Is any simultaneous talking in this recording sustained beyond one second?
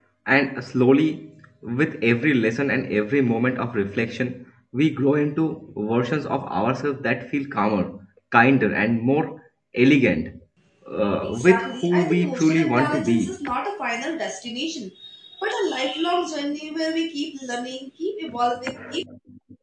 Yes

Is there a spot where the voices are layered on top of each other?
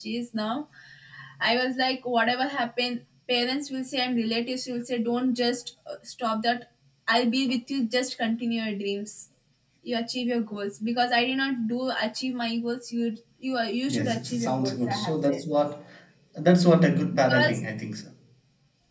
Yes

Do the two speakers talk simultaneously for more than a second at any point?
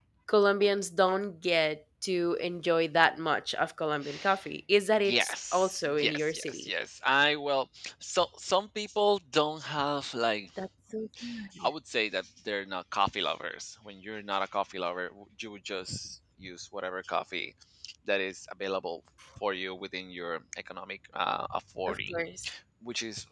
Yes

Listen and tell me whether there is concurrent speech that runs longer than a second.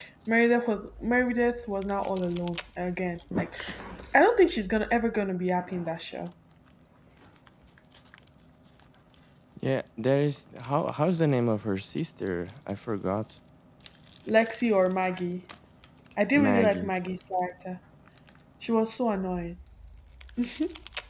No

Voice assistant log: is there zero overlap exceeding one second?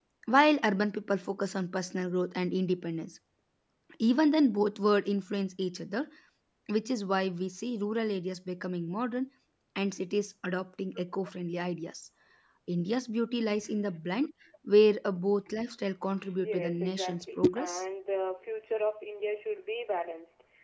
No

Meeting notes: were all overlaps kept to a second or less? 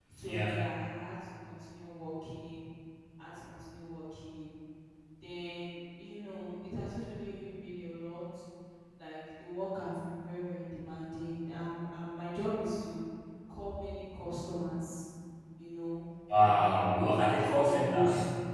No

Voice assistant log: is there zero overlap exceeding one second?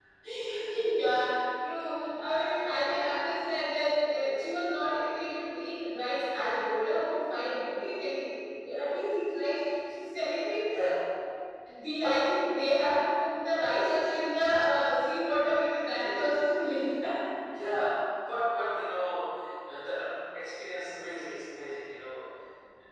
Yes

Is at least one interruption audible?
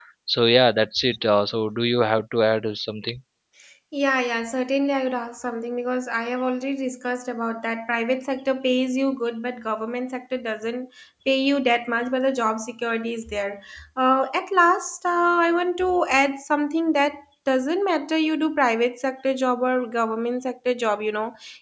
No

